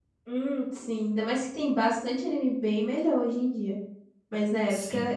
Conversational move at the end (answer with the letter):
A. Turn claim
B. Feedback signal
B